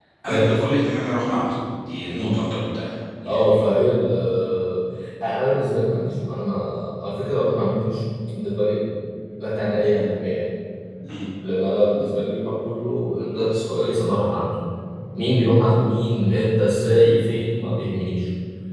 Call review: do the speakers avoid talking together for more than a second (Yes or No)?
Yes